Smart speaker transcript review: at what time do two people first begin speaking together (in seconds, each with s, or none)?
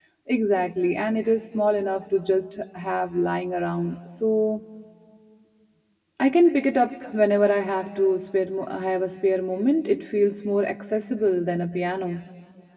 none